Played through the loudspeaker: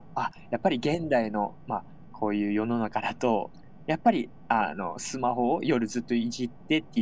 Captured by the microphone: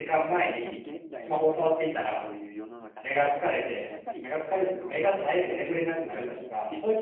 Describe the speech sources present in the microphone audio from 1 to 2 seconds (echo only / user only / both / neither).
both